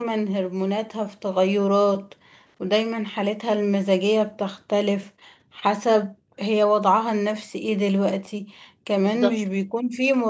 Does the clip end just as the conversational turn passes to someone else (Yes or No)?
No